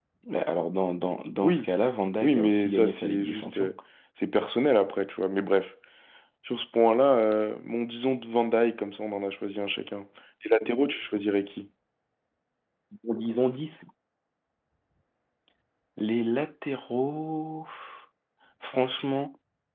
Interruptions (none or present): present